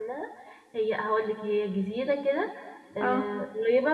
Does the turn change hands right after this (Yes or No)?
No